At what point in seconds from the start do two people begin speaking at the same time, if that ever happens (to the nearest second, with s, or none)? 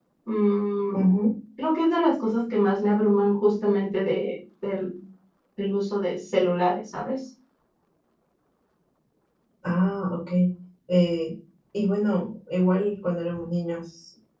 none